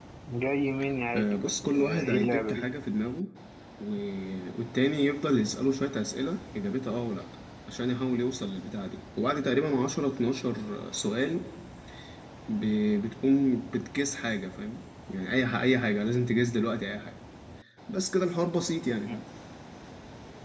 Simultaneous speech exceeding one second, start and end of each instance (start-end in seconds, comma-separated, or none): 1.2-2.6